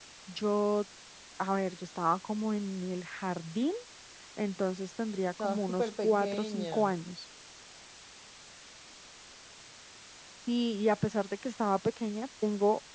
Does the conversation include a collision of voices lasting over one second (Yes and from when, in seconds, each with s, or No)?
Yes, from 5.4 s